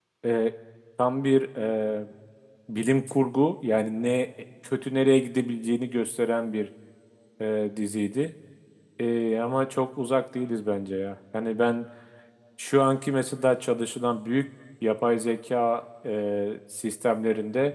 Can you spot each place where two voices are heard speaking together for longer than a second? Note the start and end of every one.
none

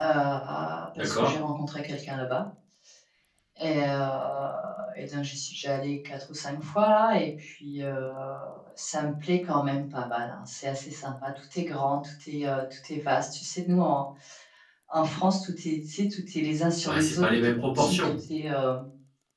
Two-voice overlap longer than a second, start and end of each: 16.8-18.1

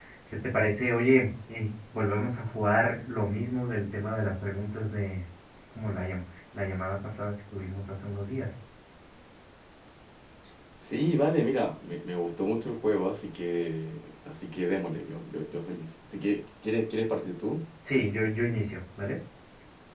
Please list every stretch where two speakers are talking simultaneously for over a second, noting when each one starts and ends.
none

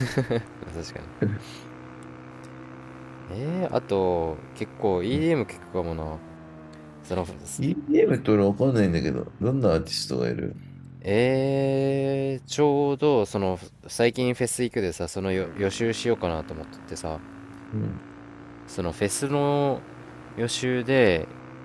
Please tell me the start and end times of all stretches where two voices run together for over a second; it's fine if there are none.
none

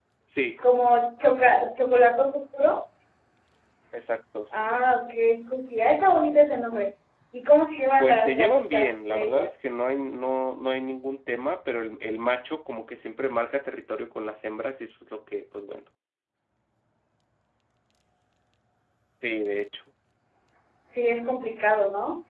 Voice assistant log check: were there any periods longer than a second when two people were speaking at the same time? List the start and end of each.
8.0-9.5

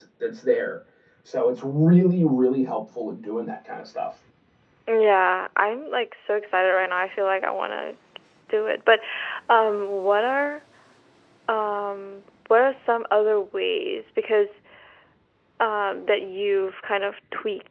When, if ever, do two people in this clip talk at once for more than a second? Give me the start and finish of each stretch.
none

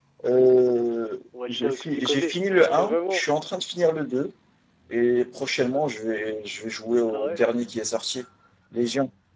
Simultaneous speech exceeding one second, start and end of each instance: 1.5-3.2

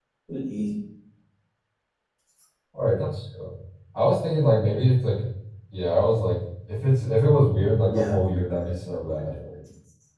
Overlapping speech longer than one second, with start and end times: 7.9-9.3

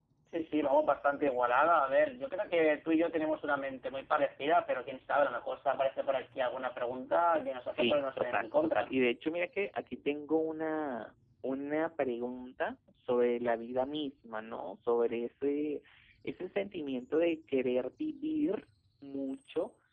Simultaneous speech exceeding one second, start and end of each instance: 7.7-8.9

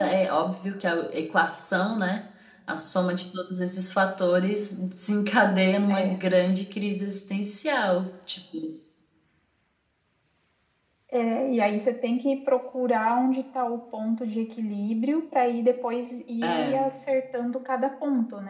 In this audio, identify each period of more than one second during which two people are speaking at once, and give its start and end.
none

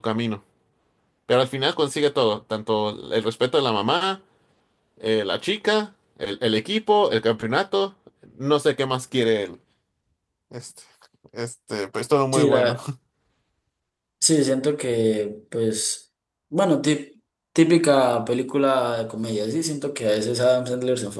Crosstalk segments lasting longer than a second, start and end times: none

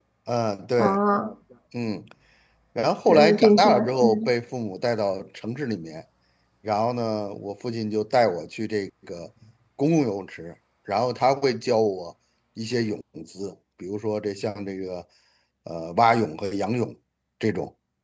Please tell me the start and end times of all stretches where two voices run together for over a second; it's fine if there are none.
3.1-4.3

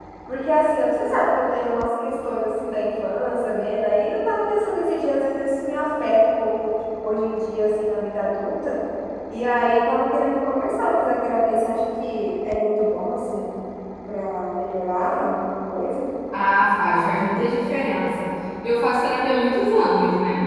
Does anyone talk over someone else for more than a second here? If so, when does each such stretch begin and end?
none

